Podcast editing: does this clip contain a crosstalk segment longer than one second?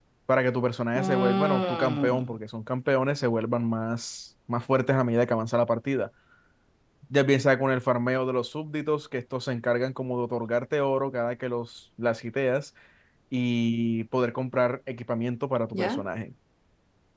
Yes, from 1.0 s

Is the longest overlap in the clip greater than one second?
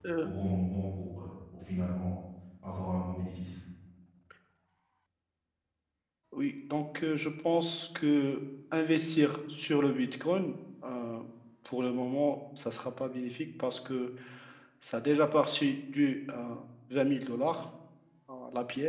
No

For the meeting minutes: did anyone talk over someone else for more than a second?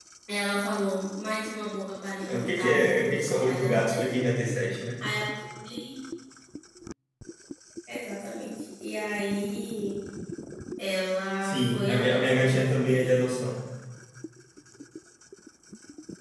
Yes, from 2.3 s

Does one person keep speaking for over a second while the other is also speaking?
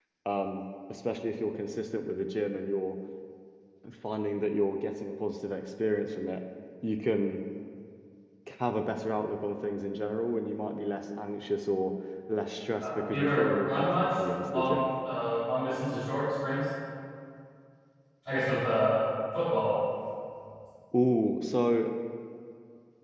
Yes, from 12.8 s

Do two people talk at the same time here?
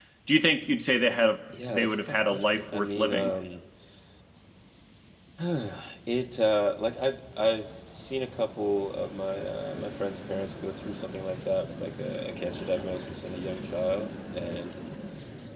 Yes, from 1.5 s

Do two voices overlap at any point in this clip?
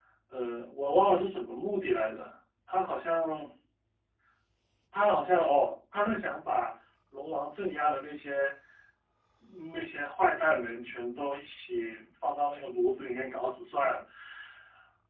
No

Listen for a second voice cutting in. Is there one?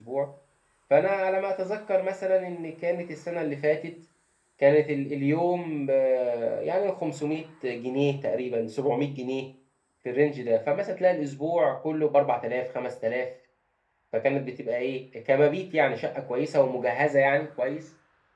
No

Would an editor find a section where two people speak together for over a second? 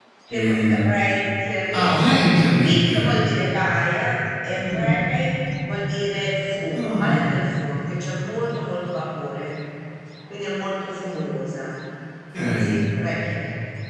No

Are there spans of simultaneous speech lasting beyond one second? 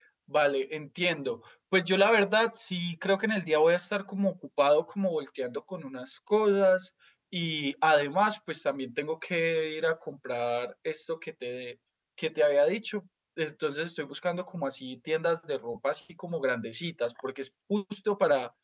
No

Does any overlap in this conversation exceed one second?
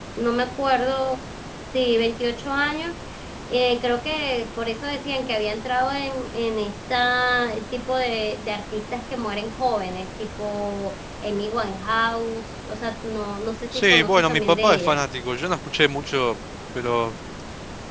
Yes, from 13.7 s

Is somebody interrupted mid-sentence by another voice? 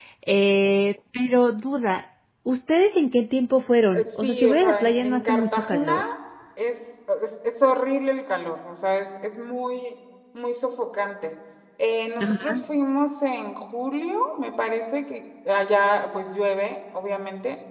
Yes, from 3.9 s

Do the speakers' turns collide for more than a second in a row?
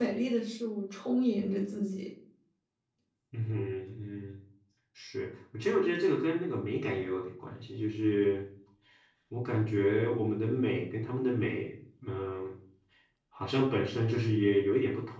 No

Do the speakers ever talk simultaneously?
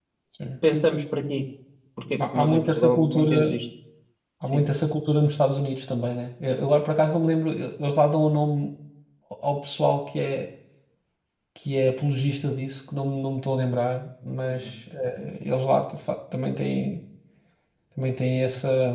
Yes, from 2.3 s

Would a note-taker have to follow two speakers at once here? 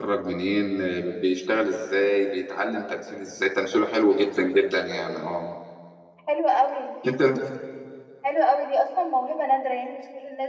No

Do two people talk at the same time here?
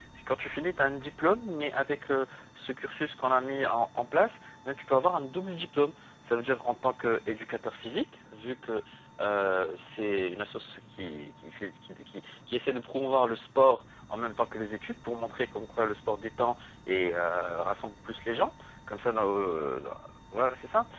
No

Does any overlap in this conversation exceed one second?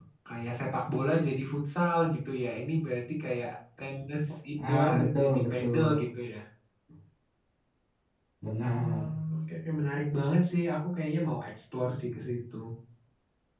Yes, from 4.7 s

